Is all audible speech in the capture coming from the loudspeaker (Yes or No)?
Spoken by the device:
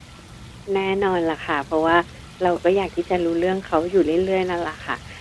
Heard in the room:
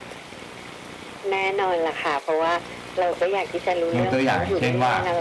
No